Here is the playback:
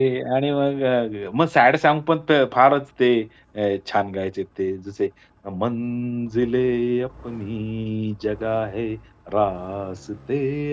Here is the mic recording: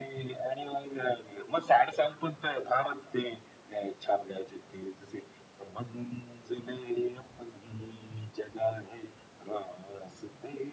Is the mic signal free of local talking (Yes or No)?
Yes